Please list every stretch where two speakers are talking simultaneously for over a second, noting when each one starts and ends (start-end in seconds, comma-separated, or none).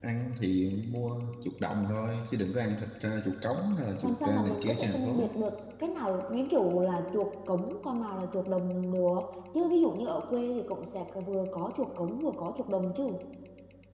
4.0-5.3